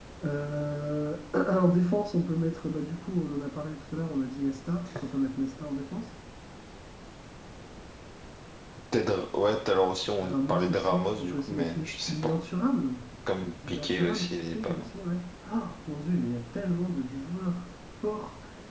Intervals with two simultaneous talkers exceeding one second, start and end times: 10.2-12.3, 13.7-14.9

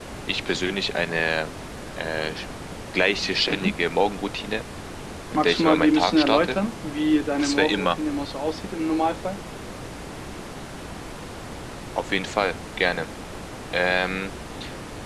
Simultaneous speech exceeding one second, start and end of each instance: 5.3-6.6

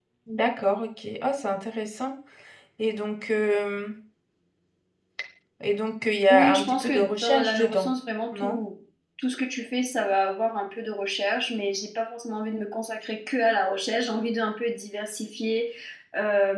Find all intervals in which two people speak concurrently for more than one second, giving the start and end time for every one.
6.3-7.9

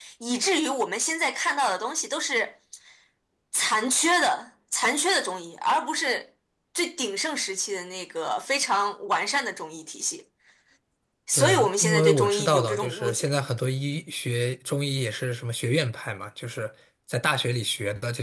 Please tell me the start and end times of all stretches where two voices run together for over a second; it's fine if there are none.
11.3-13.3

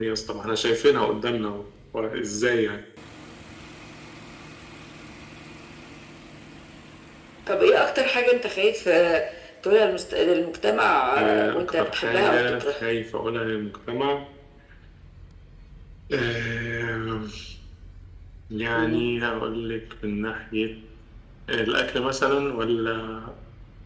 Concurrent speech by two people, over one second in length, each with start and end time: 11.2-12.8

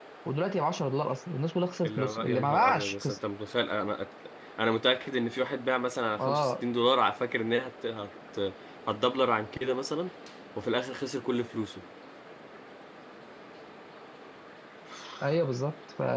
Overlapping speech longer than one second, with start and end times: 1.9-3.2

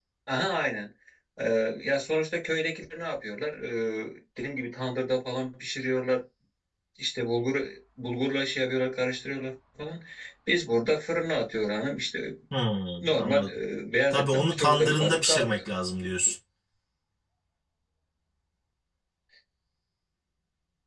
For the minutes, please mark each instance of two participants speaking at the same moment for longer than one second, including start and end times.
14.1-15.6

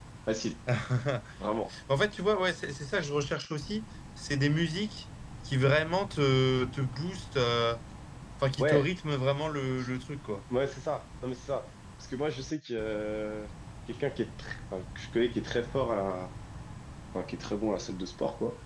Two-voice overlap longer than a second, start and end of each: none

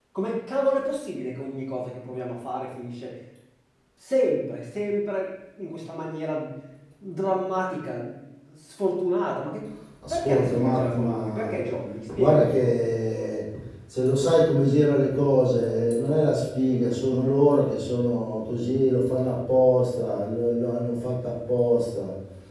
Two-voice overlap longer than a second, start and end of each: 10.1-11.5

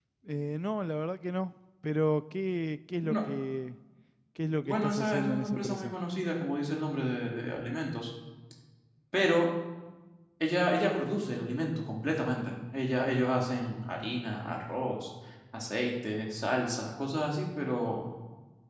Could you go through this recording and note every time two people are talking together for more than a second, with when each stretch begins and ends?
4.7-5.9

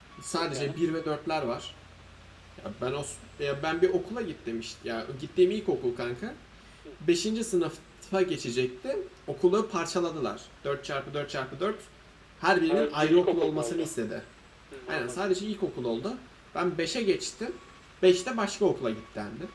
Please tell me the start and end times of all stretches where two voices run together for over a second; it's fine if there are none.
12.5-13.9

